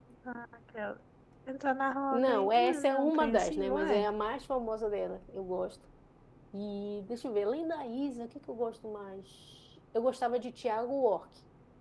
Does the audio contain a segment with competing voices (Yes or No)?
Yes